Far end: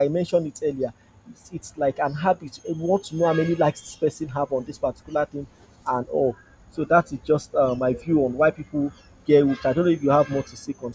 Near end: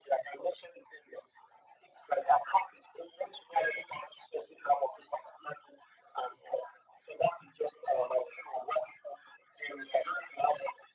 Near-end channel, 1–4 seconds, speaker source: echo only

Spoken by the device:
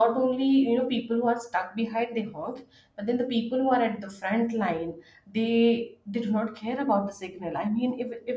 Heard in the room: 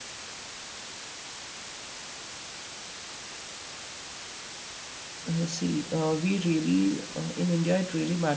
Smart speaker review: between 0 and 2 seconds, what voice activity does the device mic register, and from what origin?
neither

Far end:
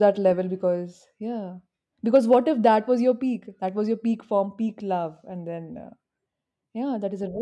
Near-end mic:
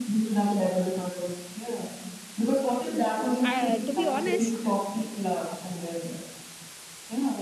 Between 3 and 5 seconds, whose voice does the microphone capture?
both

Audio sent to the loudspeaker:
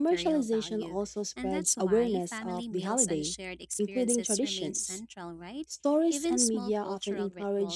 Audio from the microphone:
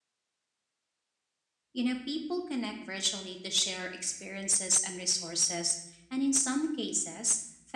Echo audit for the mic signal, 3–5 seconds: user only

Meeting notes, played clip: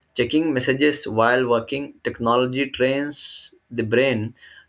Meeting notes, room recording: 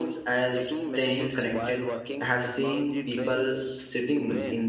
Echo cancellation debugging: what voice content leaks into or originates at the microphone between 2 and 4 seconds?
both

